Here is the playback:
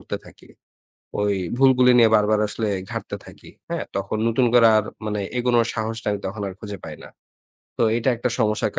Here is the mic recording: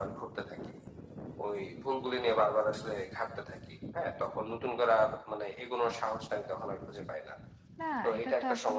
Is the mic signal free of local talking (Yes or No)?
No